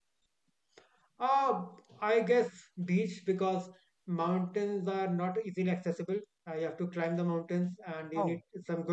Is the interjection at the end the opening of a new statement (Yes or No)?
No